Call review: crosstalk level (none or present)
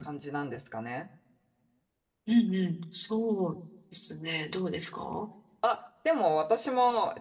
none